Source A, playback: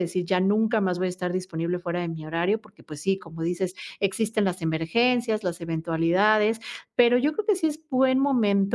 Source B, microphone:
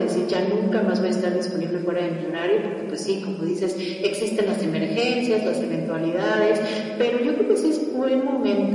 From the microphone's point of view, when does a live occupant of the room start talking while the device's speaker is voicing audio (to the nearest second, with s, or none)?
none